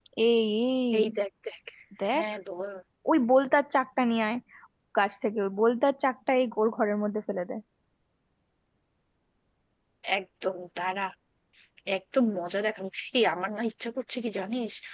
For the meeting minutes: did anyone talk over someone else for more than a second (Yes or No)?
No